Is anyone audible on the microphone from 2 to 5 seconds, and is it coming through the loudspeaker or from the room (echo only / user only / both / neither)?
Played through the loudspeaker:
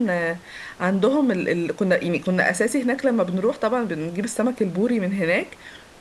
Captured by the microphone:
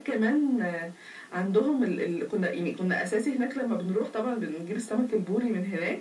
echo only